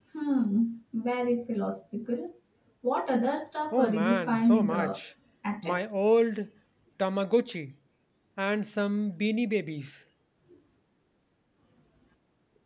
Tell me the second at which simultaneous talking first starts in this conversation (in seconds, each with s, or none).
3.7 s